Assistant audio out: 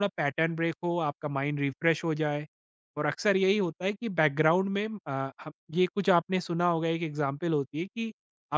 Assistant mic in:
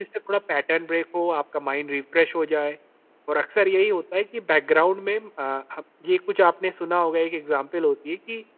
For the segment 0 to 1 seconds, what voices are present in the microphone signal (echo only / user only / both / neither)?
echo only